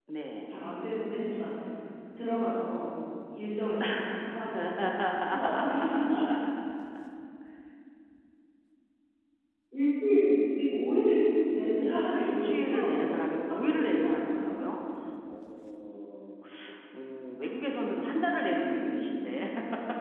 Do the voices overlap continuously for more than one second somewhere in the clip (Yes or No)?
Yes